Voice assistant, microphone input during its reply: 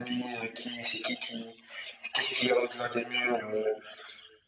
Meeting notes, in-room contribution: none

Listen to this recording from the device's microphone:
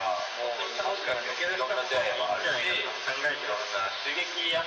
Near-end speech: none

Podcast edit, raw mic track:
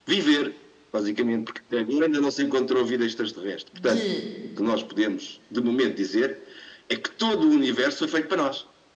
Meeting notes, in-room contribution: present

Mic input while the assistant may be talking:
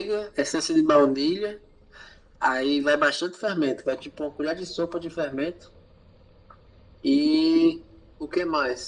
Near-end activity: none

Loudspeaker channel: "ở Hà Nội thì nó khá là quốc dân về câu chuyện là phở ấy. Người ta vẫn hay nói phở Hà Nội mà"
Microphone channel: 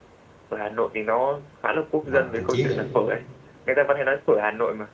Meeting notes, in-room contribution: present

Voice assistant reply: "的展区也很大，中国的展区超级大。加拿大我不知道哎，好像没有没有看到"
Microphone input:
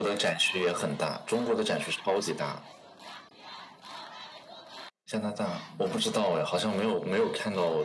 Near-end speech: none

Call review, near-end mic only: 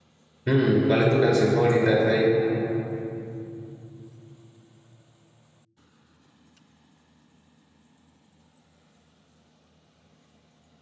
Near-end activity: present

